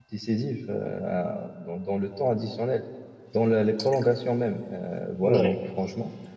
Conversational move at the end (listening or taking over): listening